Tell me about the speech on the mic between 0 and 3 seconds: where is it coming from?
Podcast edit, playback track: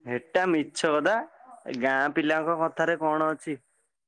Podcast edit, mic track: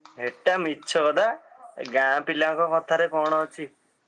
echo only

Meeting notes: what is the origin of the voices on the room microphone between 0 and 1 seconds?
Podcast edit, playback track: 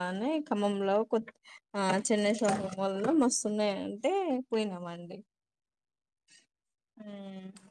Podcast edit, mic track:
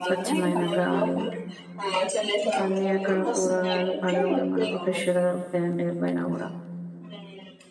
both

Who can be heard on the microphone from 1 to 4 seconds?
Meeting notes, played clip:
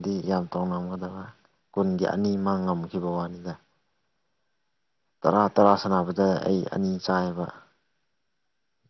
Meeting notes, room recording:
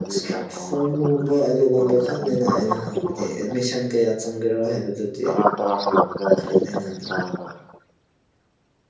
both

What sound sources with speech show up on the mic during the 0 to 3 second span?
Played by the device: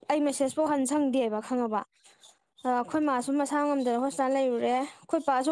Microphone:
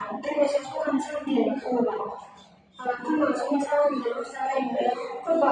echo only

